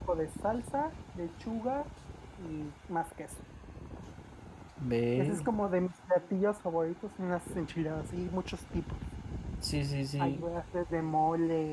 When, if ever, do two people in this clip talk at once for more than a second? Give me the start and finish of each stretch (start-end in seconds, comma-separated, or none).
none